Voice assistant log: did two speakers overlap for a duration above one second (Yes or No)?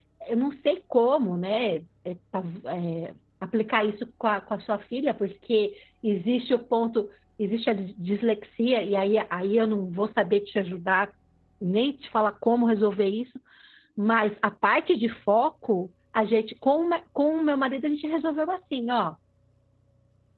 No